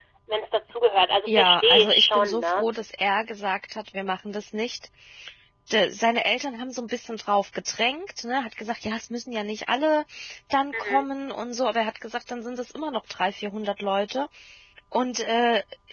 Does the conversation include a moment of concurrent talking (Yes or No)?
Yes